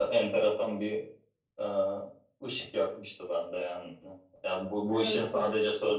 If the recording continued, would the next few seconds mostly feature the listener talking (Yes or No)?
No